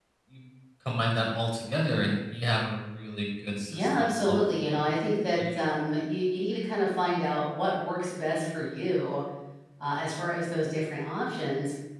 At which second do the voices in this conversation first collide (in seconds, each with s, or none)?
3.7 s